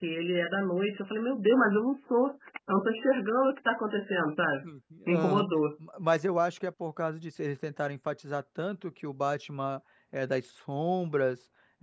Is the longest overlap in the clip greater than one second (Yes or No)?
No